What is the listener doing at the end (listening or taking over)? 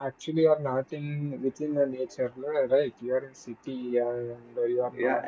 taking over